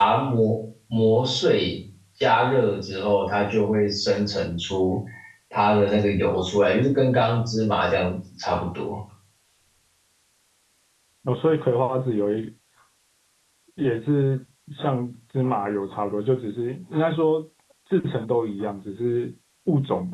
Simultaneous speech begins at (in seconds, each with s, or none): none